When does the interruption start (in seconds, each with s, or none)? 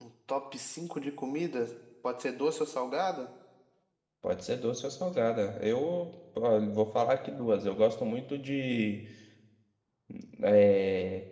none